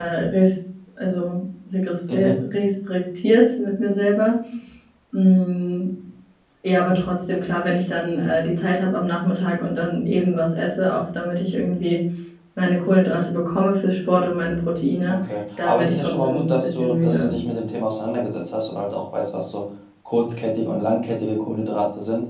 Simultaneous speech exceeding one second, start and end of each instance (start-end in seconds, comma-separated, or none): 15.6-17.4